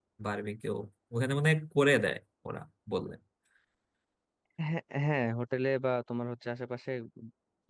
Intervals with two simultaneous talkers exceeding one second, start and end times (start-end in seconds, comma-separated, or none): none